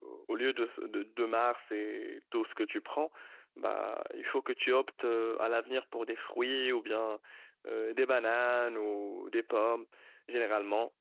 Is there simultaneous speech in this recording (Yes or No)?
No